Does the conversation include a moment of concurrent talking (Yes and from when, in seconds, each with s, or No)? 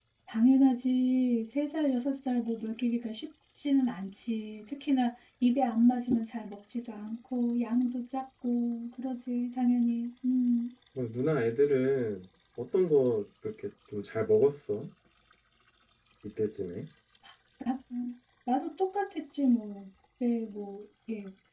No